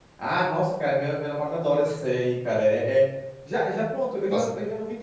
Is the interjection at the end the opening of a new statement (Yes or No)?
No